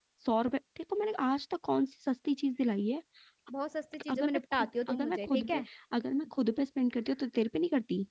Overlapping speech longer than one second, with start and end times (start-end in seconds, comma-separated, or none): 4.1-5.6